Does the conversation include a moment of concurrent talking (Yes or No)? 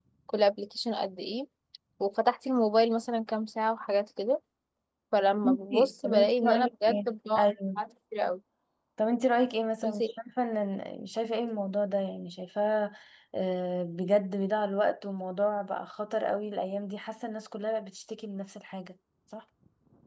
Yes